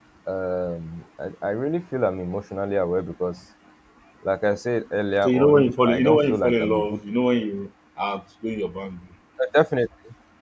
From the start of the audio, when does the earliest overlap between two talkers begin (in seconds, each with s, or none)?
5.2 s